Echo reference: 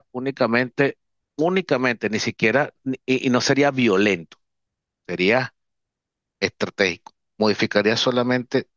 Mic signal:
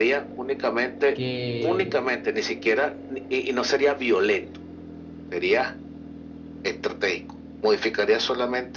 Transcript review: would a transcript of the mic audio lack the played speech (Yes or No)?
No